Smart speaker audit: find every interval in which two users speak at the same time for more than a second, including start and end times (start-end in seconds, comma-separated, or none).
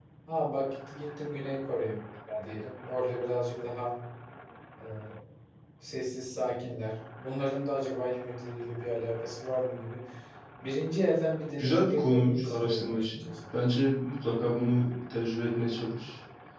11.6-13.3